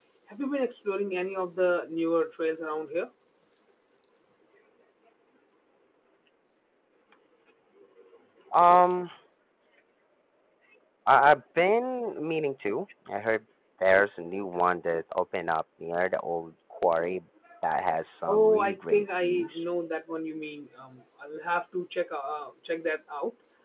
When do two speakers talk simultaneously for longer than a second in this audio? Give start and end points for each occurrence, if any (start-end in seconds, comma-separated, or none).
18.3-19.6